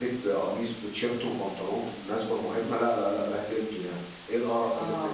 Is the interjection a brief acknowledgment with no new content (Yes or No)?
No